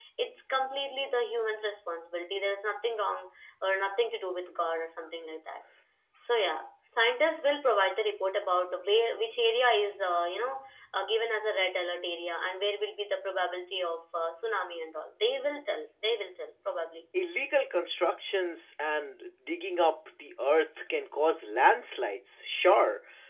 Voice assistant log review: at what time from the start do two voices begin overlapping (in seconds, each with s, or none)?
none